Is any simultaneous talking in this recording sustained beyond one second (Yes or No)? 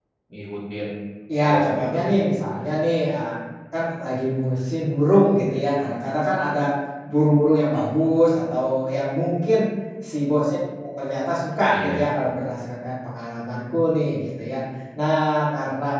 No